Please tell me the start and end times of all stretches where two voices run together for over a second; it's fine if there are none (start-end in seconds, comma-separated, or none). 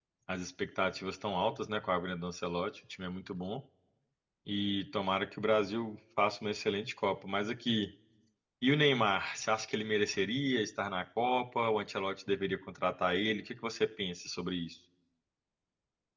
none